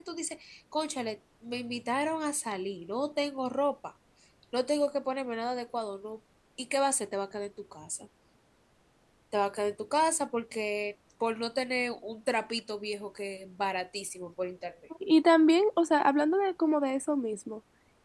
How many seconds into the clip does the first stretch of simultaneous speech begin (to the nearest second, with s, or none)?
none